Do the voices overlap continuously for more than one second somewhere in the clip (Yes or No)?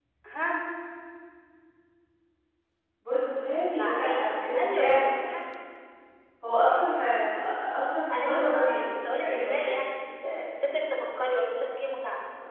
Yes